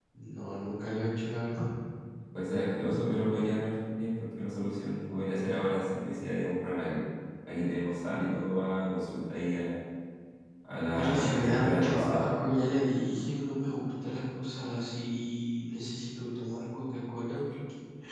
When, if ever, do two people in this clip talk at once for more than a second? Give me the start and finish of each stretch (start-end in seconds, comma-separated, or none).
10.9-12.2